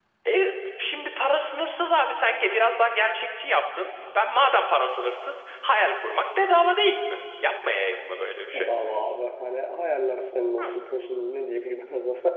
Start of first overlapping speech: none

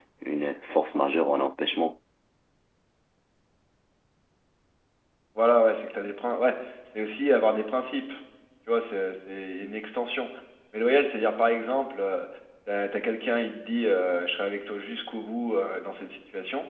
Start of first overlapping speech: none

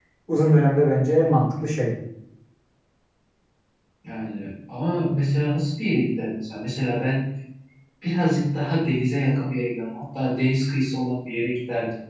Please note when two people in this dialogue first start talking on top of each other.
none

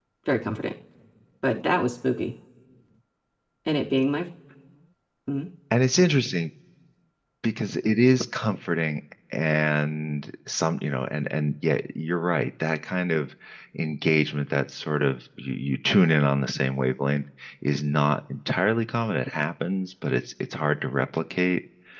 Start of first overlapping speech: none

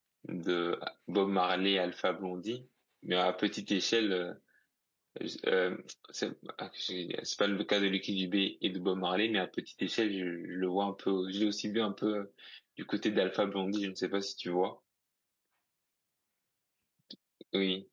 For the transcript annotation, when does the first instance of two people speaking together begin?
none

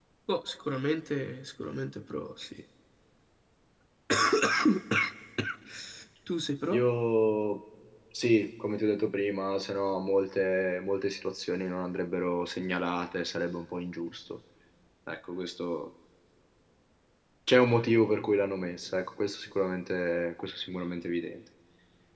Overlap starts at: none

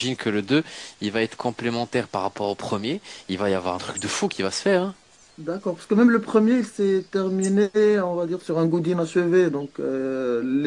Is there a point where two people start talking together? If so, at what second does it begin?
none

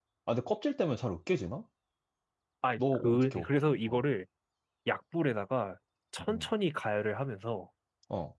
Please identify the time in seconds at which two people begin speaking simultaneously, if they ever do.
2.8 s

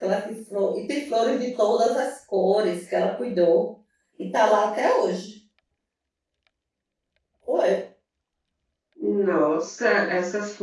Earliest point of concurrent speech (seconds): none

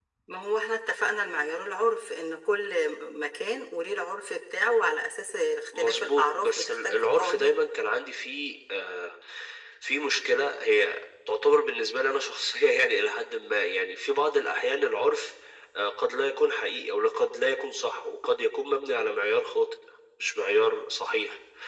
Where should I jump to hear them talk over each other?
5.7 s

